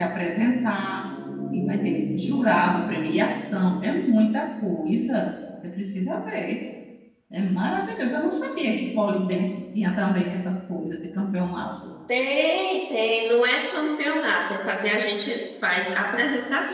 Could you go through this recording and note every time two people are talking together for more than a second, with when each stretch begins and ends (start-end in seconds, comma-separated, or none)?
none